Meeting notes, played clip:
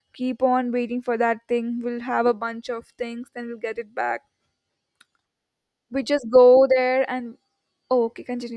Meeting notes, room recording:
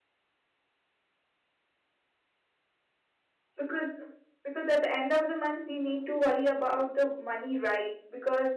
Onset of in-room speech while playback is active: 3.6 s

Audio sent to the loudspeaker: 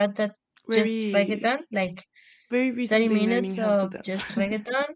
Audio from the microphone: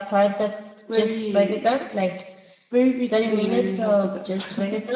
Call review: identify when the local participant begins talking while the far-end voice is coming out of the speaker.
none

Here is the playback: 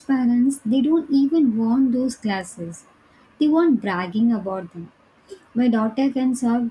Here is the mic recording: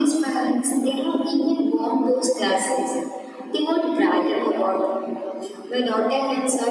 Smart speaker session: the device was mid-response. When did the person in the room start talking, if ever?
none

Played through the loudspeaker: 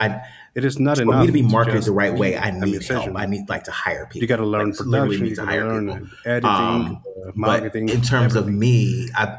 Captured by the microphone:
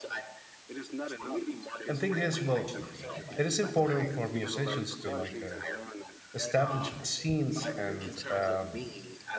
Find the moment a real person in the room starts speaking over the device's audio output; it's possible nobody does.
1.9 s

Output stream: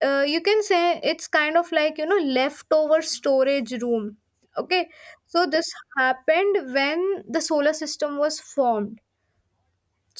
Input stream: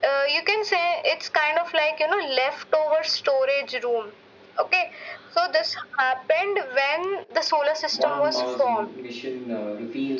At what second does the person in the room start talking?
7.9 s

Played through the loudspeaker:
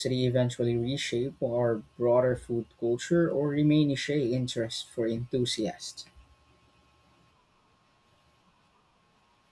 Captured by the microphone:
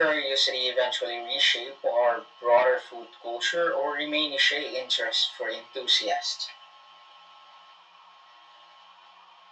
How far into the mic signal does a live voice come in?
none

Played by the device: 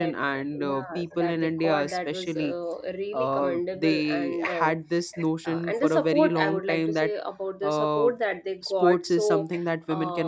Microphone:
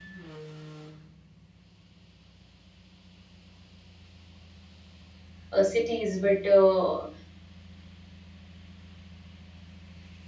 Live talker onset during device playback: 5.5 s

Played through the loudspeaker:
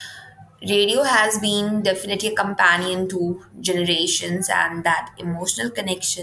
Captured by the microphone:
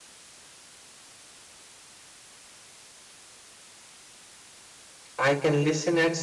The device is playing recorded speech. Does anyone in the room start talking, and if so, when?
5.2 s

